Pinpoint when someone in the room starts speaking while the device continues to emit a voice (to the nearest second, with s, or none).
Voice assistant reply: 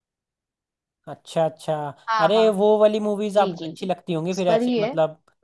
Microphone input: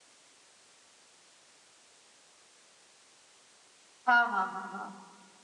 4 s